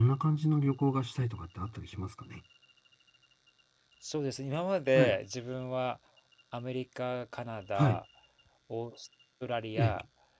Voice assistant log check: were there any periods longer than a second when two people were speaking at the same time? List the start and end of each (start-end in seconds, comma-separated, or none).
none